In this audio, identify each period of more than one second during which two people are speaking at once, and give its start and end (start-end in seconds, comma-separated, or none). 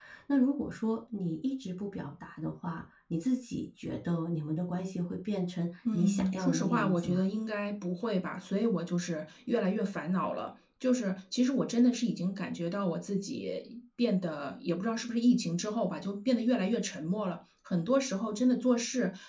5.9-7.2